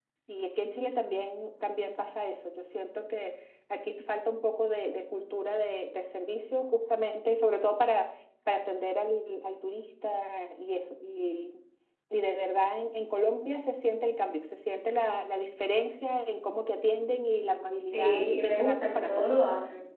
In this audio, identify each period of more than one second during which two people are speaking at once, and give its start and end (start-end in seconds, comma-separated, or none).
17.9-19.3